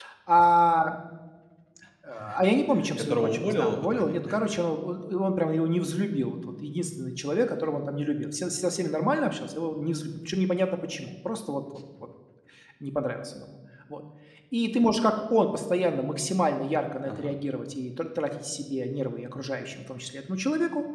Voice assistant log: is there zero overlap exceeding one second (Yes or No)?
No